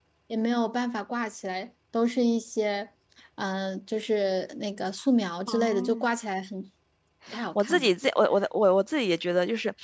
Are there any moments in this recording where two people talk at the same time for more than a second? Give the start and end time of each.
none

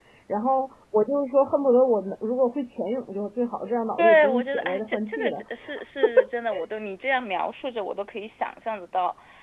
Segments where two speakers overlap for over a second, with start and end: 4.0-5.4

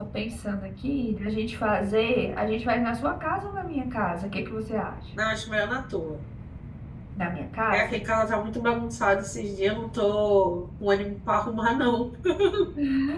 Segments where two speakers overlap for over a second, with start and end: none

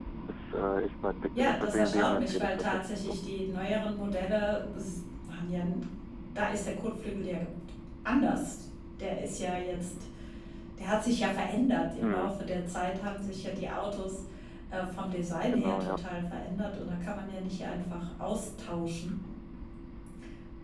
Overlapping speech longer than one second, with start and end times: 1.4-3.2

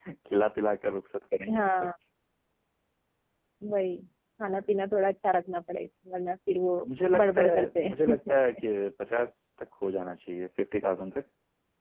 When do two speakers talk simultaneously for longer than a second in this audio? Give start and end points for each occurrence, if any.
7.2-8.6

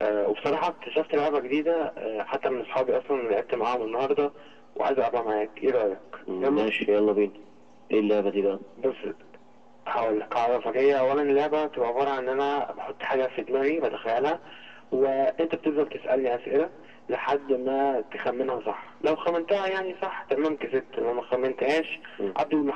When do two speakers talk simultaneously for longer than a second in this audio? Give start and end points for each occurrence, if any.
none

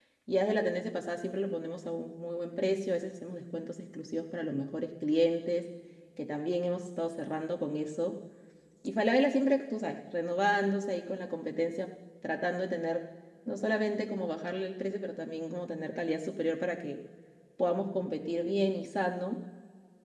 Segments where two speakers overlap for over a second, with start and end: none

